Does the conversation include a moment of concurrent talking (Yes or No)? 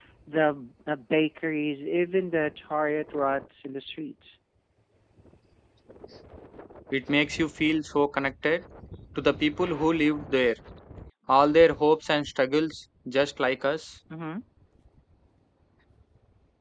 No